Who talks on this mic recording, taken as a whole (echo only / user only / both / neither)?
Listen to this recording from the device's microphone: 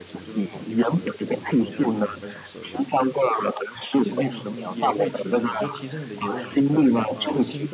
both